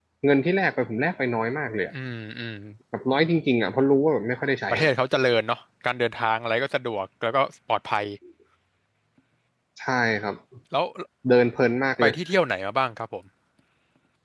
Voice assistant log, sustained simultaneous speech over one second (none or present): none